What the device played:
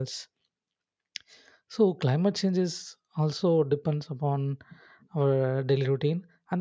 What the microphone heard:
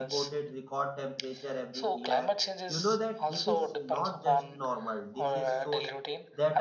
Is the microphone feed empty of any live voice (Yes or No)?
No